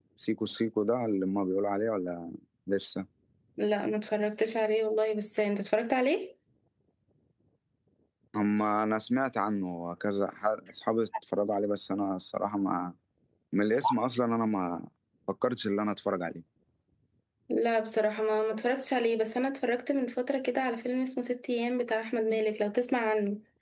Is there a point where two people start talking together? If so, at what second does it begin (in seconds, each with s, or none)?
none